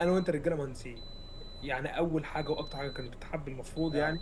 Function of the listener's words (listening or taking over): listening